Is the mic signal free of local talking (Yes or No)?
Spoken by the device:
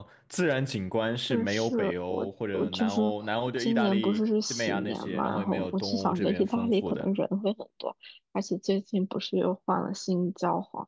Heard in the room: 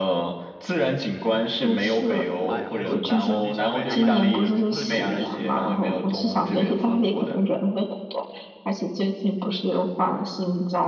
No